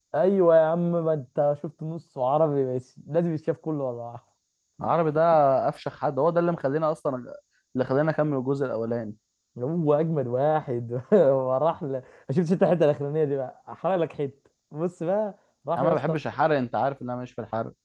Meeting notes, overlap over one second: none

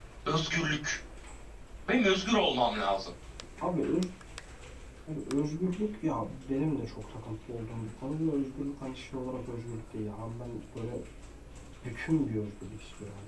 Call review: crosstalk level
none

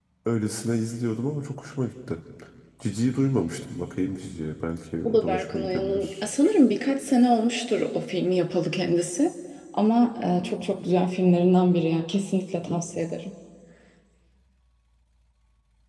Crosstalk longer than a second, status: present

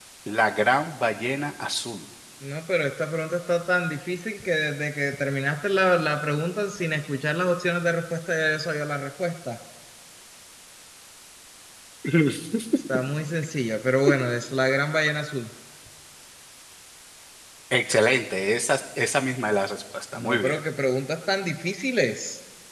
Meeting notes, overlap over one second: none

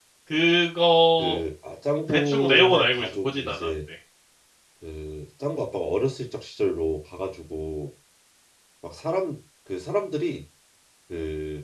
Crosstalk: present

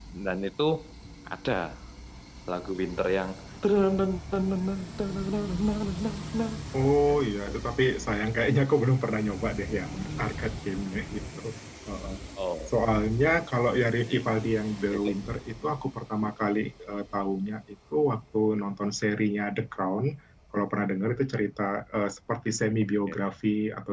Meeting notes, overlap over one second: none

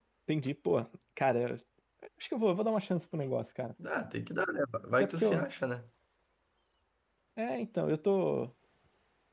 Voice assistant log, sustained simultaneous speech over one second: none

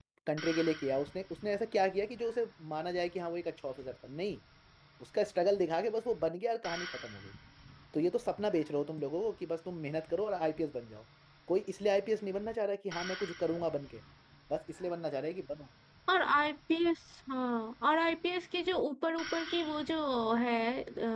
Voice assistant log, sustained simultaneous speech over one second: none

